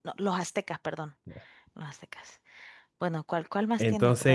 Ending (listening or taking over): taking over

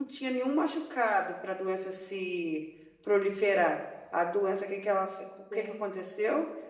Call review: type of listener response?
listening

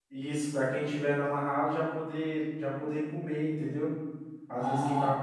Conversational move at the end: taking over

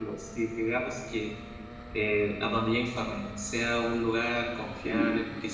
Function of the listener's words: listening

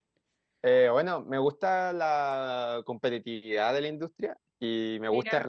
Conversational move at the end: listening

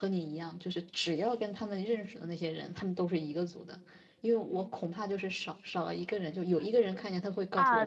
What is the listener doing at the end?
taking over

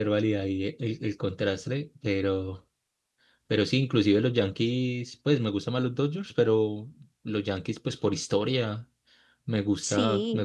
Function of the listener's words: listening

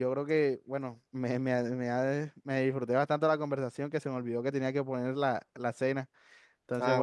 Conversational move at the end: taking over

